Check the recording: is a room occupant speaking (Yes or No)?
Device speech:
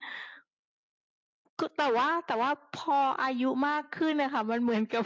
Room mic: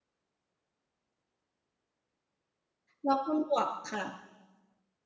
Yes